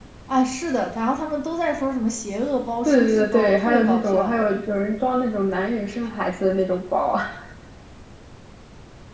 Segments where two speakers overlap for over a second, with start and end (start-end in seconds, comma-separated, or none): 2.8-4.4